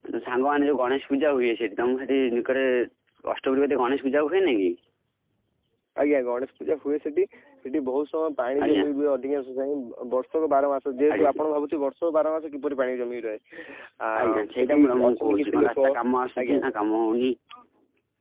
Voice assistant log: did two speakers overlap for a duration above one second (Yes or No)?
Yes